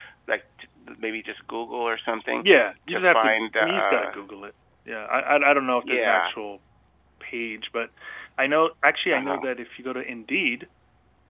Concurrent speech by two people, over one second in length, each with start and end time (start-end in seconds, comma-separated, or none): 2.9-4.1